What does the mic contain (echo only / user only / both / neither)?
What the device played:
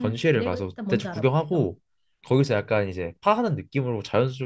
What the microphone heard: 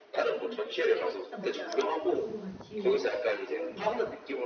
both